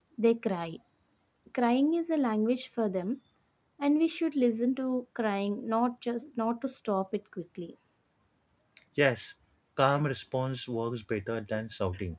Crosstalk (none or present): none